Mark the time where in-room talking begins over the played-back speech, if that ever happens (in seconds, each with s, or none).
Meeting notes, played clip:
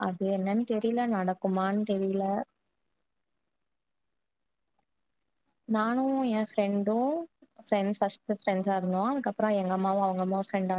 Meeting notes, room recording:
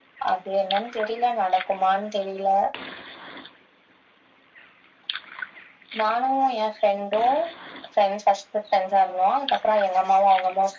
none